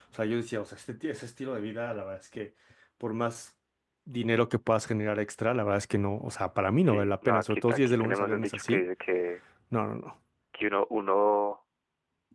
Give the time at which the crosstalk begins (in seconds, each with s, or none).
6.8 s